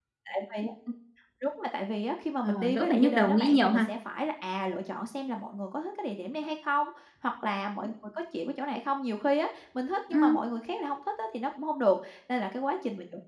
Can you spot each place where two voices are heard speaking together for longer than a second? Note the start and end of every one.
2.4-3.9

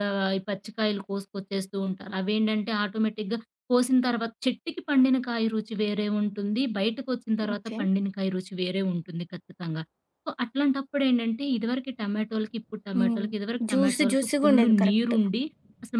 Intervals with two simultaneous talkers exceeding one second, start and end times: 13.7-14.9

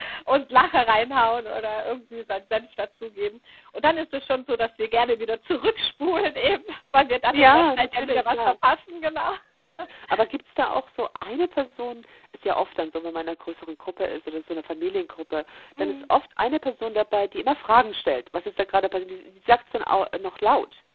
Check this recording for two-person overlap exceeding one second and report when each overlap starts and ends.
7.3-8.6

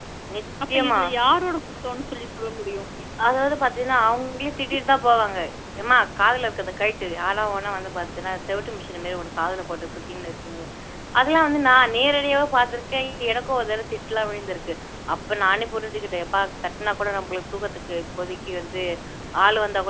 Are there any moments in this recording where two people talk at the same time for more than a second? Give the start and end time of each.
none

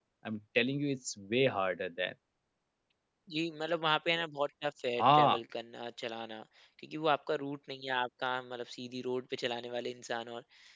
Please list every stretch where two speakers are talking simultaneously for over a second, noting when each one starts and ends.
none

